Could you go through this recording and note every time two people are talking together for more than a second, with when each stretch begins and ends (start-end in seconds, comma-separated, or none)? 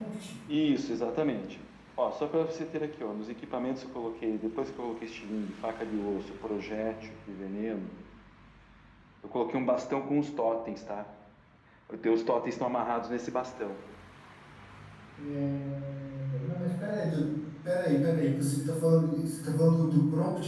none